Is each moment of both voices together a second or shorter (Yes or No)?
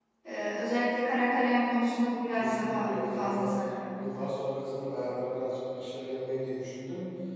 No